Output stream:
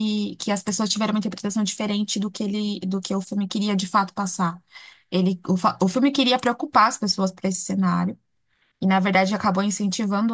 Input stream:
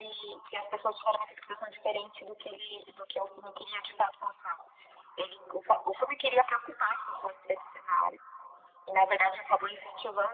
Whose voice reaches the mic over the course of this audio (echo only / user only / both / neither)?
echo only